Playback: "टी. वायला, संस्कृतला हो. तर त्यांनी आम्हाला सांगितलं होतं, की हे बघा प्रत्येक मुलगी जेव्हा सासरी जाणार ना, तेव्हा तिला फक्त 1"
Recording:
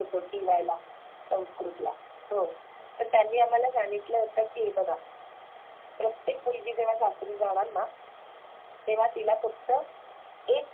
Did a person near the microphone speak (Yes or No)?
No